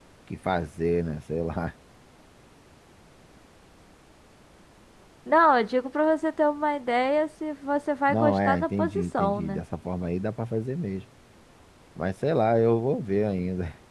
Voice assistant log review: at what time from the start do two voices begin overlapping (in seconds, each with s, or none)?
8.1 s